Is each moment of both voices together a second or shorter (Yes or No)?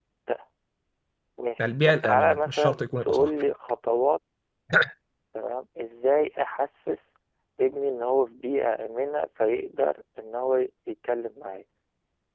No